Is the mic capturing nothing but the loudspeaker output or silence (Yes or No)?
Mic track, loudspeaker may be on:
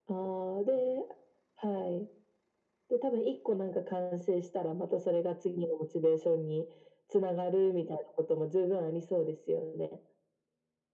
Yes